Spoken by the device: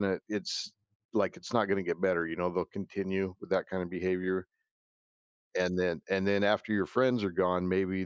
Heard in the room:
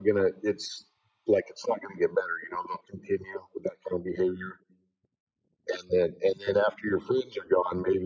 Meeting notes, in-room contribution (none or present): none